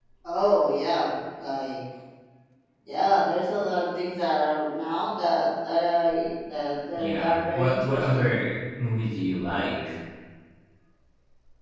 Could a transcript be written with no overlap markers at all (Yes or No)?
No